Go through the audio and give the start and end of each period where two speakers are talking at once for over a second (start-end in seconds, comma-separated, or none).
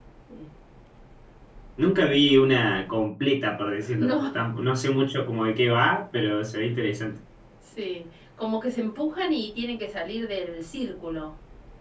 none